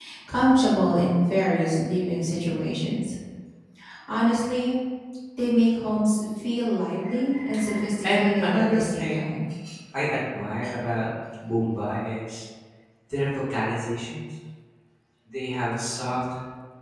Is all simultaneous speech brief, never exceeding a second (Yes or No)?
No